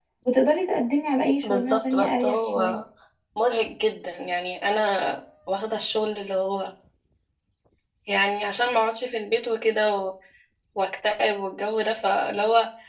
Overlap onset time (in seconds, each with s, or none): 1.4 s